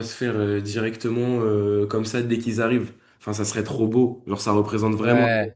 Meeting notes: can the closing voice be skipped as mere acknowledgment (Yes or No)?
Yes